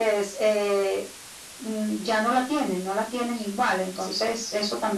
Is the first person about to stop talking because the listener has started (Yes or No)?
No